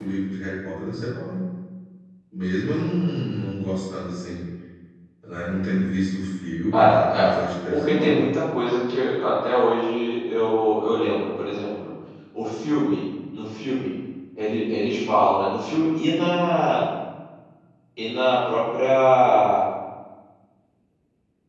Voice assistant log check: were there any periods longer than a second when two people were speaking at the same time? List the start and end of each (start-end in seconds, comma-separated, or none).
none